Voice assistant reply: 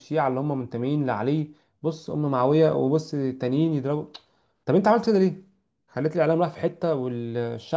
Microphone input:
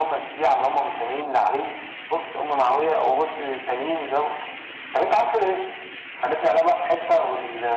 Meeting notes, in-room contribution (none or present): none